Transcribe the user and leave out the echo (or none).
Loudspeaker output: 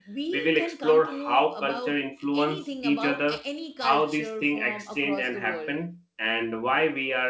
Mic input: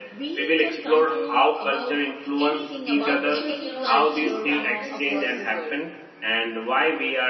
uh, because you know the east practices